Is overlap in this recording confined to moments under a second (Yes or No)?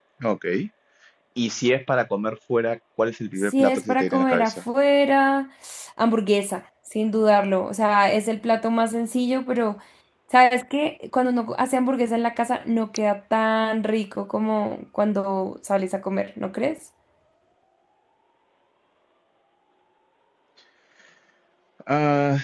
No